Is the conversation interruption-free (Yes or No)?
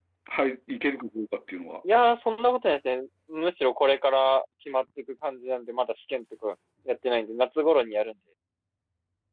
Yes